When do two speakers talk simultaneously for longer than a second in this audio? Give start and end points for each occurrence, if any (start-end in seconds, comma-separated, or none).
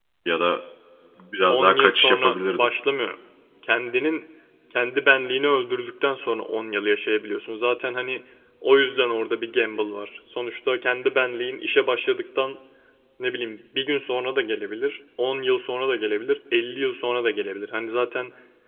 1.5-2.7